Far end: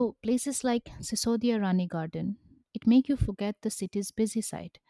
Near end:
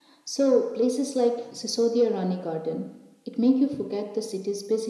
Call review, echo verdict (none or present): present